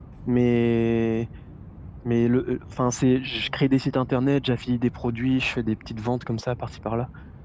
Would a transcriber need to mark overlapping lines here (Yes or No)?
No